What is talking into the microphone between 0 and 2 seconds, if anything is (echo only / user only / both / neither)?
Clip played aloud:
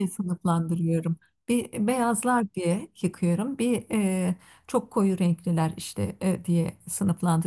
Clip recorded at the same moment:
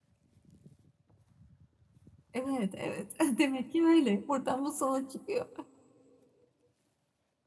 neither